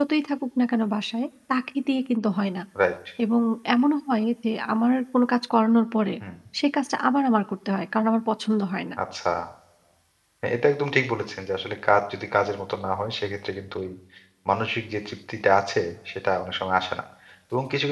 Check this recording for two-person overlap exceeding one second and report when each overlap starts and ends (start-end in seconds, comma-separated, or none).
none